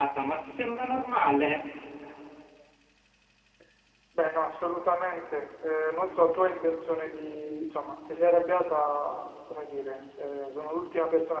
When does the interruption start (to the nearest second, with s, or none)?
none